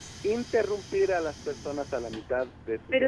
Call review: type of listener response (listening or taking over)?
taking over